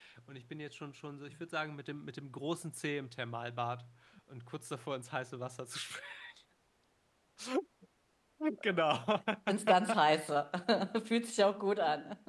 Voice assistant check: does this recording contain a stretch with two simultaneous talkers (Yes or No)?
No